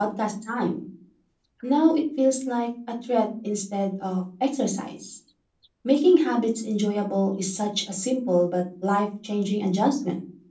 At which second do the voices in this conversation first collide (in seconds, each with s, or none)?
none